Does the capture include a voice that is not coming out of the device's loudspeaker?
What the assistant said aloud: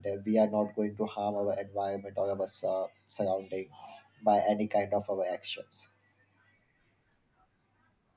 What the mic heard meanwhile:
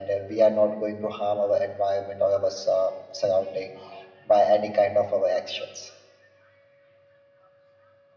No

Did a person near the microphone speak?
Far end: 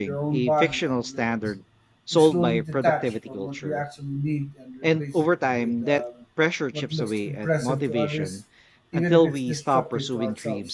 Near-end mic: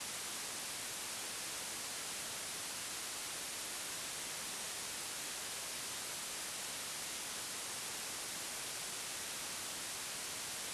No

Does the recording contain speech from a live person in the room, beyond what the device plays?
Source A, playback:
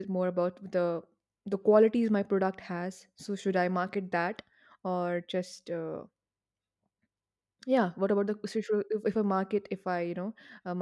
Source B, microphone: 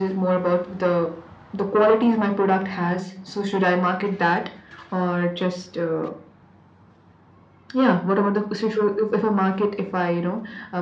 No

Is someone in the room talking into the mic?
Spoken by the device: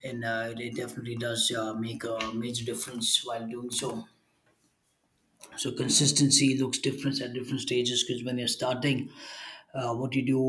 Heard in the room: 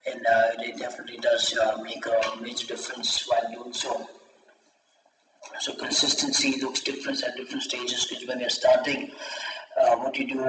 No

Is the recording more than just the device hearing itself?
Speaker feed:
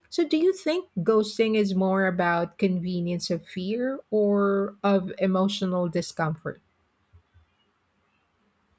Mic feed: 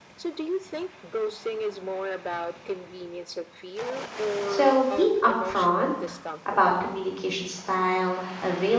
Yes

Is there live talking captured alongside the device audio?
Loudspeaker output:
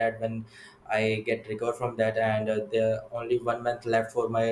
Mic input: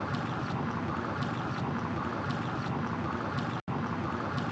No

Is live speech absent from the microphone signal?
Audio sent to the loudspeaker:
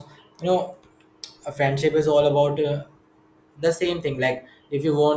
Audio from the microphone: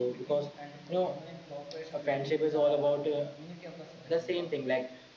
No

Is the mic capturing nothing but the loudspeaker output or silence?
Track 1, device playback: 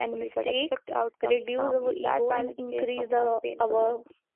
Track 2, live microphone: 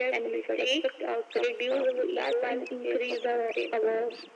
Yes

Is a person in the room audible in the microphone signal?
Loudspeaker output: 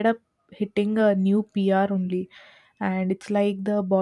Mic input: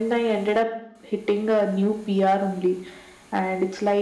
No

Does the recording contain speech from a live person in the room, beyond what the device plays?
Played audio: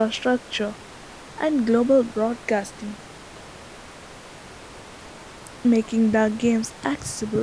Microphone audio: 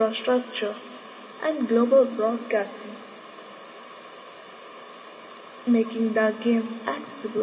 No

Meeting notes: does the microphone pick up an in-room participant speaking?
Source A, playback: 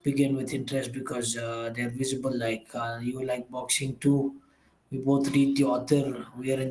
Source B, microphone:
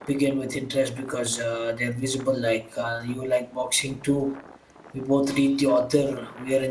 No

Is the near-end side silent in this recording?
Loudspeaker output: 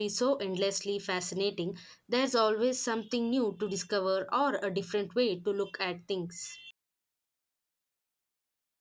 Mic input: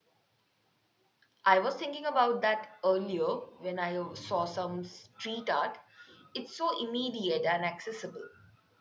No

